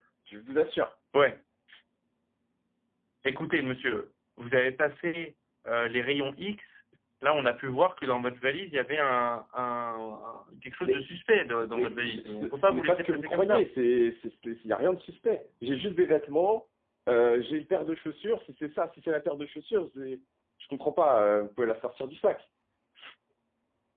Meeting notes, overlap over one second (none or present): present